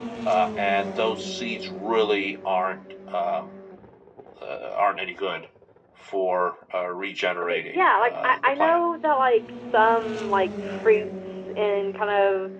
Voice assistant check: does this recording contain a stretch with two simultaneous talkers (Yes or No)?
Yes